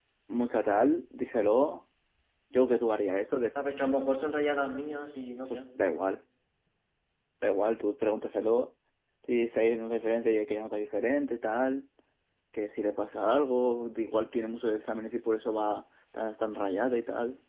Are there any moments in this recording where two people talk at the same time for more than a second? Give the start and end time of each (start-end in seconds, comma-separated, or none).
none